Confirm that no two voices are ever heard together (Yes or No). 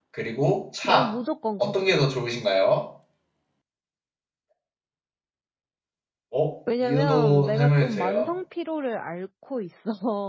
No